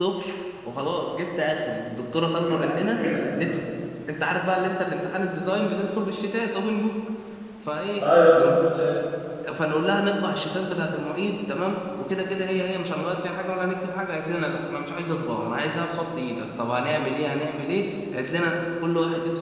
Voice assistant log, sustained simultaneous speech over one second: none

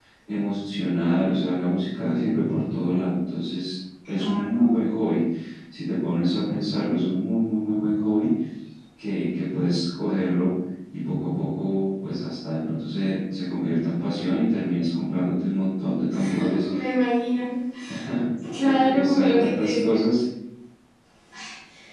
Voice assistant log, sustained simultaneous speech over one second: present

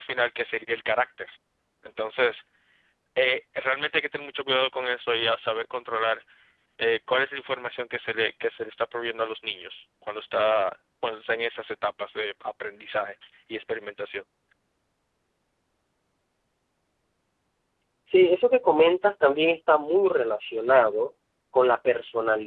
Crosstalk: none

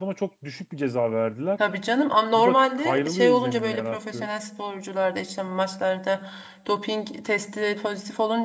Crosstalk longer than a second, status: present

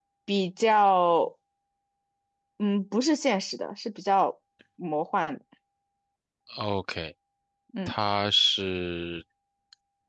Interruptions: none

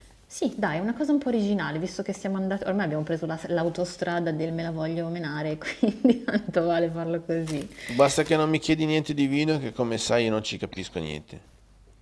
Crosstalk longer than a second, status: none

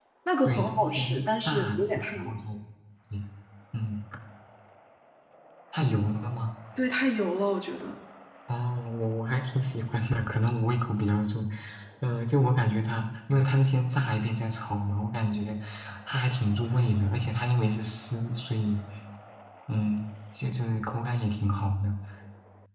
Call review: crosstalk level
present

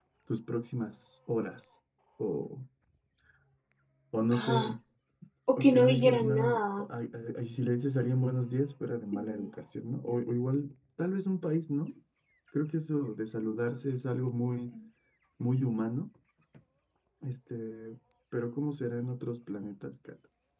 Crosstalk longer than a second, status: present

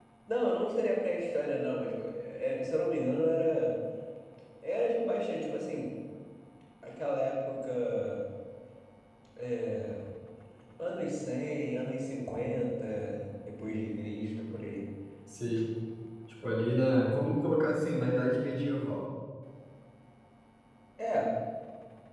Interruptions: none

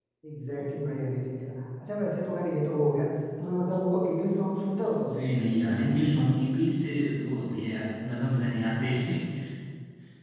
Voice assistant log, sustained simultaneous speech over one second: none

